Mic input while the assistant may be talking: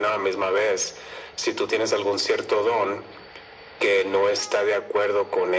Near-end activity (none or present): none